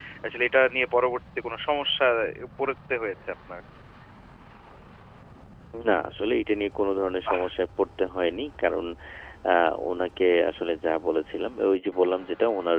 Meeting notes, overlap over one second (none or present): none